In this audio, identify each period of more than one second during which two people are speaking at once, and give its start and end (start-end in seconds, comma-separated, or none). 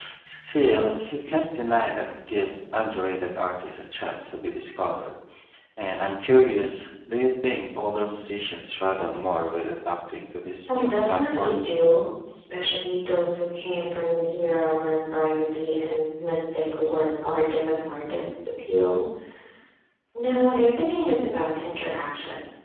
10.6-11.8